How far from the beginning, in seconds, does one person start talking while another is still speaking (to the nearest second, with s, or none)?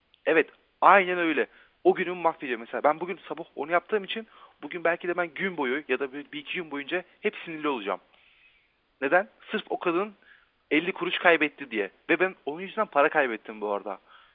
none